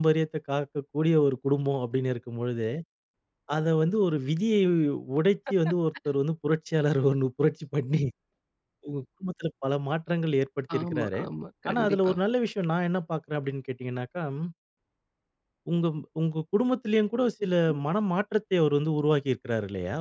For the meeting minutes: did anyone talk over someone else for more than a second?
No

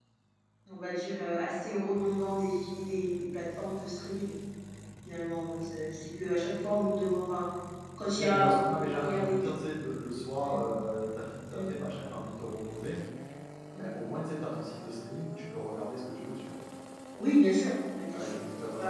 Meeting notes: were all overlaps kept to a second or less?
No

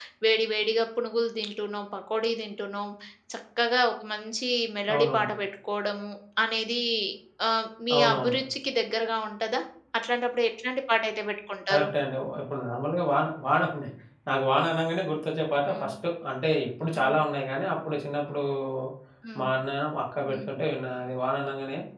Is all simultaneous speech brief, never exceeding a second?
Yes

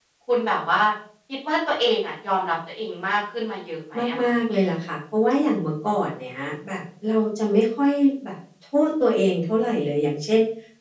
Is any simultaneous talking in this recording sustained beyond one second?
No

